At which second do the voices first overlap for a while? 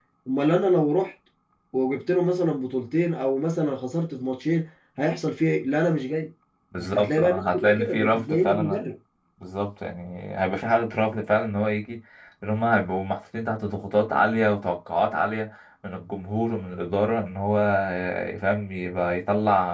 7 s

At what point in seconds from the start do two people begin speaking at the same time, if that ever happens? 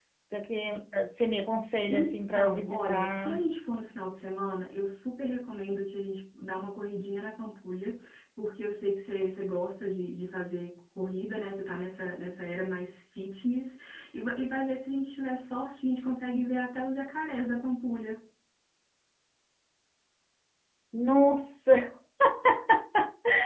2 s

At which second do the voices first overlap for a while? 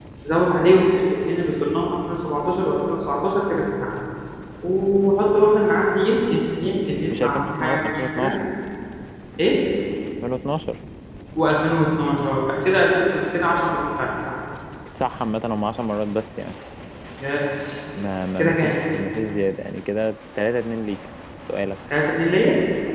7 s

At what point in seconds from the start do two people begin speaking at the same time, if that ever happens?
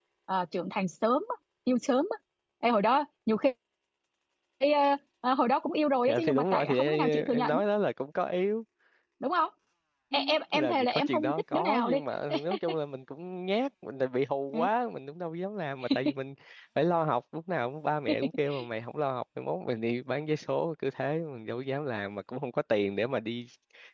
6 s

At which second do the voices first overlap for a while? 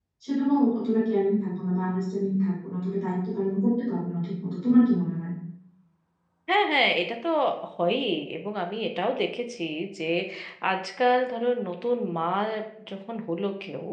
none

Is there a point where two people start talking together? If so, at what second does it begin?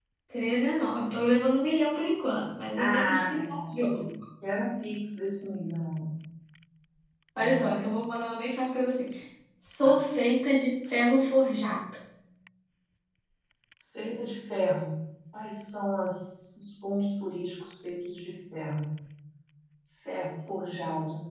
3 s

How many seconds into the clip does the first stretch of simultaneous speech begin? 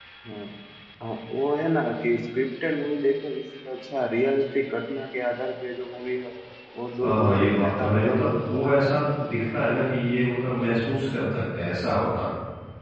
7 s

